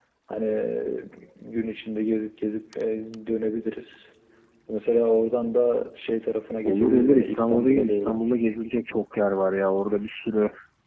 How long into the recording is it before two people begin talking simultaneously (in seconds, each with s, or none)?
6.7 s